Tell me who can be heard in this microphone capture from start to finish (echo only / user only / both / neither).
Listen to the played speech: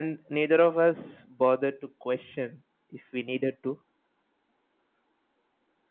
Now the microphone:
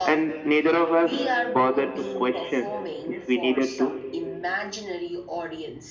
both